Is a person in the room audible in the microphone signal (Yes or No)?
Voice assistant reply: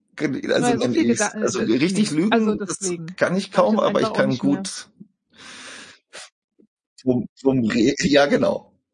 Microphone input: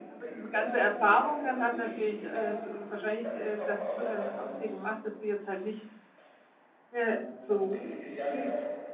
Yes